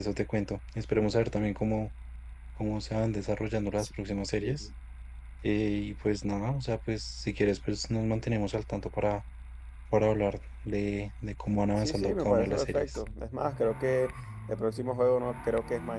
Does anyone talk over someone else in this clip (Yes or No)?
Yes